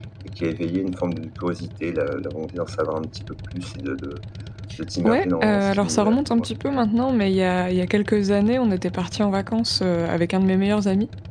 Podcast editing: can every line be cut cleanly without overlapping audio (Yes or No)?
No